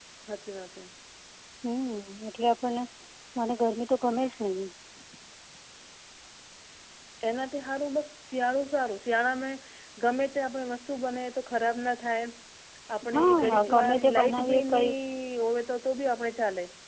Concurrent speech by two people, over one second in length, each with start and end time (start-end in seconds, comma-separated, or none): 13.1-14.9